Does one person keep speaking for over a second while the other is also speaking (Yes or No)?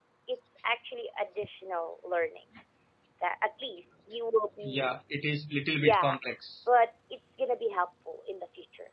No